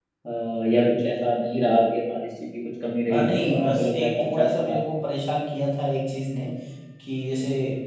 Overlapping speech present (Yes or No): Yes